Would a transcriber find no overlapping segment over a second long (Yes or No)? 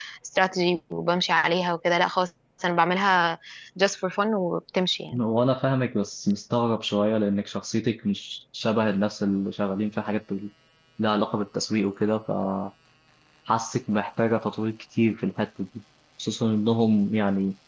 Yes